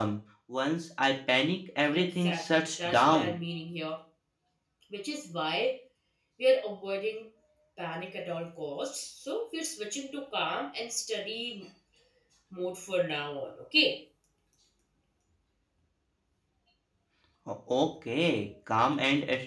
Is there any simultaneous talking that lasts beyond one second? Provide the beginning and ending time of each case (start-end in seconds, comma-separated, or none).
1.9-3.3